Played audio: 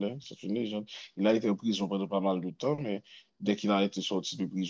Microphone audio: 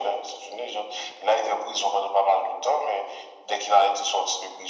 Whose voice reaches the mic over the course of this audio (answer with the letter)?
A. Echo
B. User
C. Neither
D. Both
A